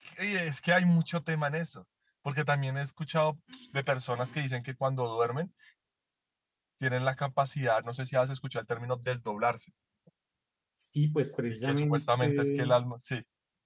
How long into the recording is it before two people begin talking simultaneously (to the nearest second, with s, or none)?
11 s